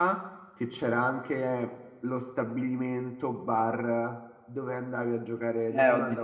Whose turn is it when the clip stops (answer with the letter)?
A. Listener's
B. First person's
A